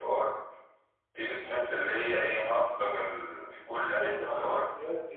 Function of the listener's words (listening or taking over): taking over